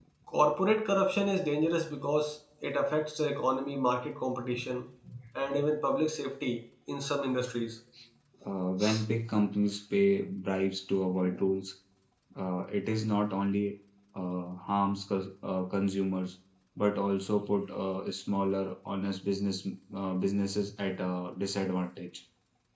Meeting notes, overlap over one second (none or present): none